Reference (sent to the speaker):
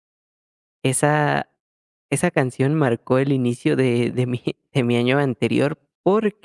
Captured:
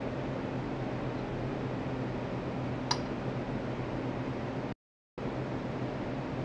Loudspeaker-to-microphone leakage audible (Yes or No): No